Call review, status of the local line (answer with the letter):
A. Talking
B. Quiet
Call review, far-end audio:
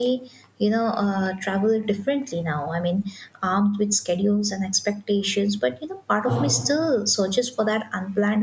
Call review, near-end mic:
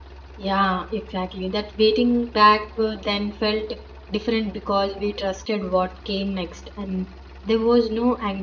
A